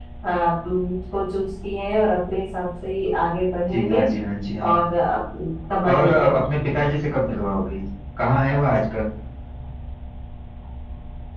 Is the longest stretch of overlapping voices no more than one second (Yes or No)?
Yes